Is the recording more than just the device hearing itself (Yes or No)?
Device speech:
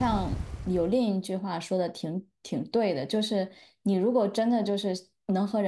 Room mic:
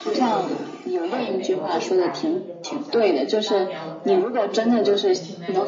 Yes